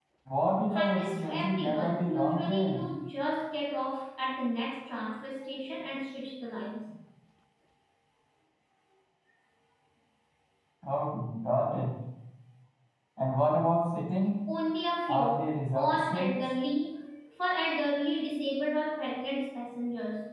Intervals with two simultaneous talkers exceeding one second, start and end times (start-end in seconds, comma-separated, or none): 0.7-2.9, 15.1-16.3